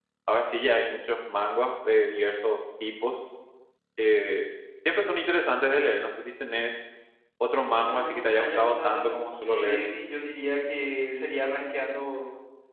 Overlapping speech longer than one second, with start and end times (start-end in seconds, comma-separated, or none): 7.8-9.9